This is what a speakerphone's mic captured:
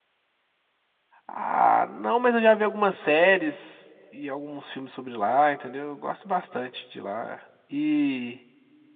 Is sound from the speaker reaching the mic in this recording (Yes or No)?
No